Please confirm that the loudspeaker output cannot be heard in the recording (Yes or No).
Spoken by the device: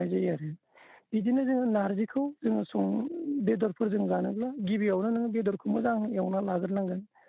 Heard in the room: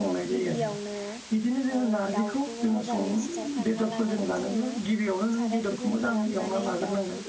No